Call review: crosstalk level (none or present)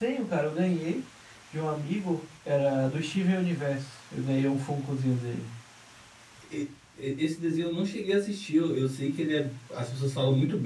none